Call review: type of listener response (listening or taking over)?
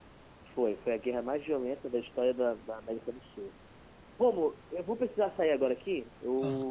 listening